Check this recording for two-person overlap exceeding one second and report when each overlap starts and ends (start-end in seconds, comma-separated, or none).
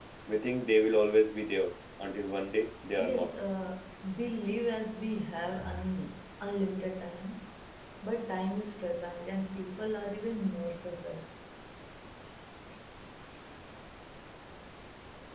none